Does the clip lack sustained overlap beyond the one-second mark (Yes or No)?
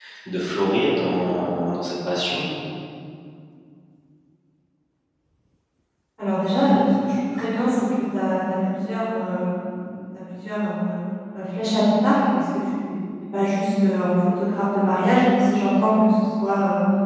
Yes